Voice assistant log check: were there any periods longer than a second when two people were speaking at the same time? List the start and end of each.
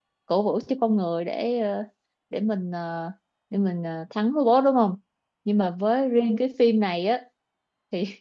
none

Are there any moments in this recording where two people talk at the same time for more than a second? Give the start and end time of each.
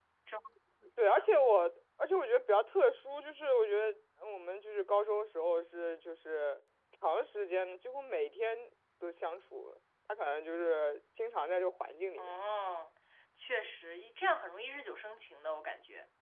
none

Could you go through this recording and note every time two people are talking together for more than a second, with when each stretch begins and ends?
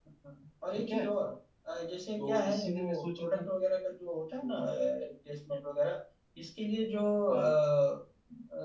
2.2-3.5

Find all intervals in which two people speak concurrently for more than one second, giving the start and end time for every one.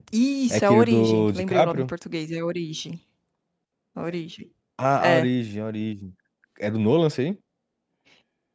0.5-1.9

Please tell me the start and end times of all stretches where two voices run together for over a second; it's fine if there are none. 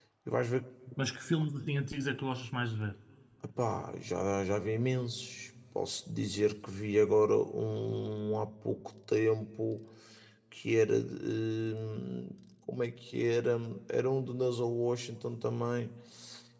none

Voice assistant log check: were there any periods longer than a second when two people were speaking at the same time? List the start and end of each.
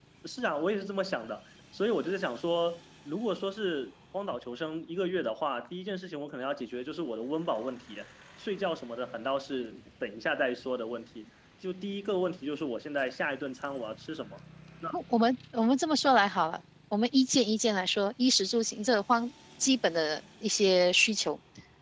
none

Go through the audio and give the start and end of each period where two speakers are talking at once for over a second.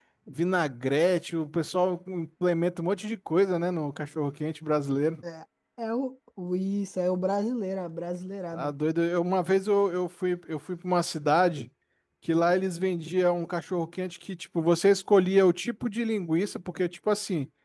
none

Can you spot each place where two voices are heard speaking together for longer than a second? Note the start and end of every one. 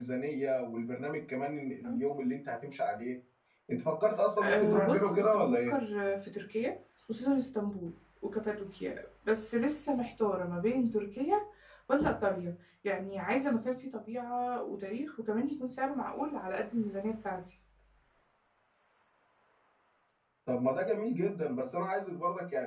4.4-5.7

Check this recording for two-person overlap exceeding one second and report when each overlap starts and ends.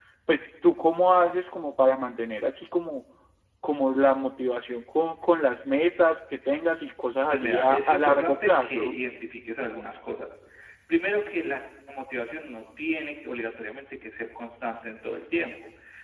7.3-8.9

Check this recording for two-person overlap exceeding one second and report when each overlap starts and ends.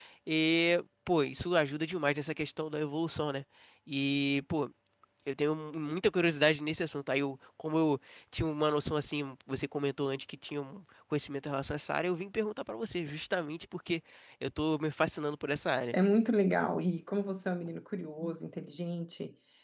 none

